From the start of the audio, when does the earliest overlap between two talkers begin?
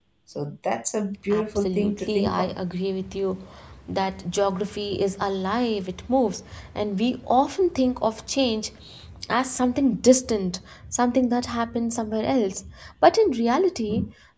1.3 s

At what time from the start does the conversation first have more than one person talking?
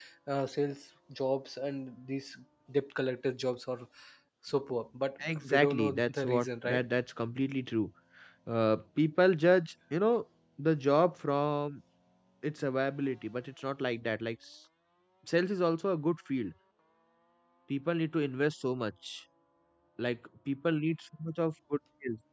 5.2 s

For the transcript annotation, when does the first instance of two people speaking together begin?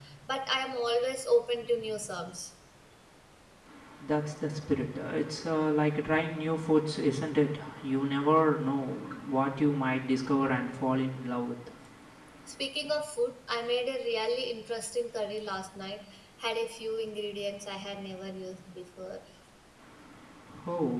none

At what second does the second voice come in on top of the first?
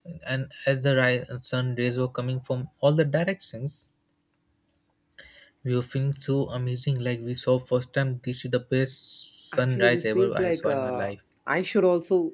9.5 s

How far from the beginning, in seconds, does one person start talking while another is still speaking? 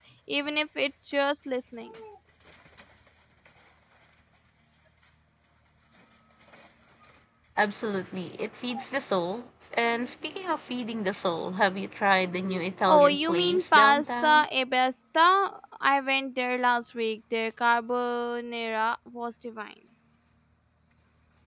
12.9 s

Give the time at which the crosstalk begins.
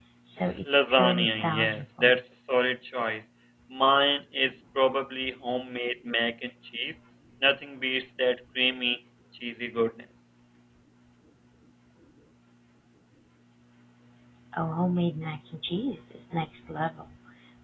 0.7 s

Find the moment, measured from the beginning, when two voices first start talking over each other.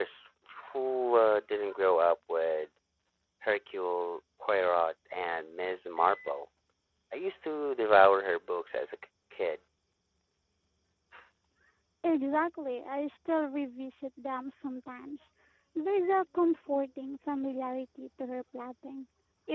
none

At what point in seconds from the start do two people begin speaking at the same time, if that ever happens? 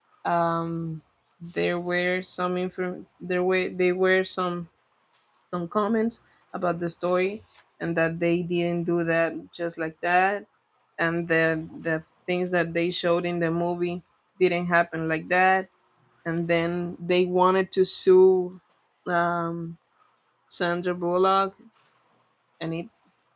none

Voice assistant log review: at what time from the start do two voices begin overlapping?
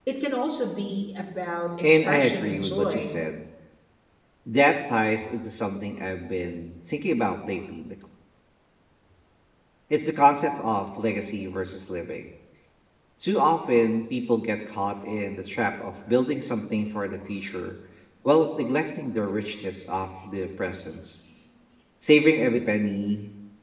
1.8 s

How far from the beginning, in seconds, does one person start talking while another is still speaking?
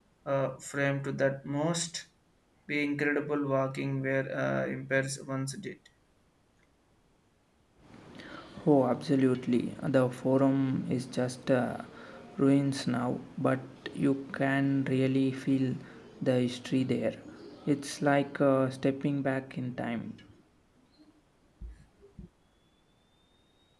none

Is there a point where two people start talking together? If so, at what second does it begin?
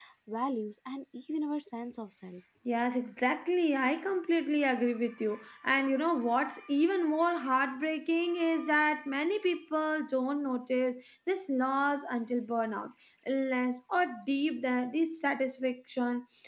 none

